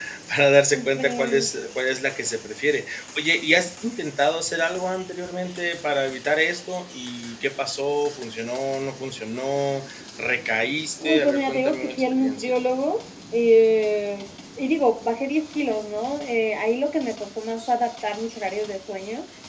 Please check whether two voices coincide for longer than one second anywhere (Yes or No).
Yes